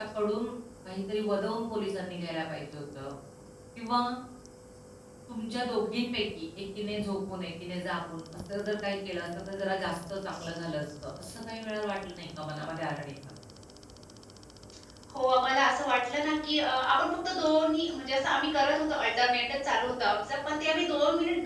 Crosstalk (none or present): none